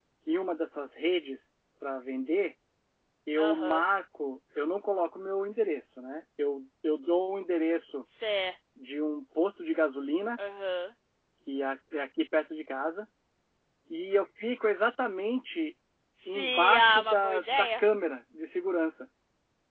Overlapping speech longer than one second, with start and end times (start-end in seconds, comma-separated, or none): 16.3-17.8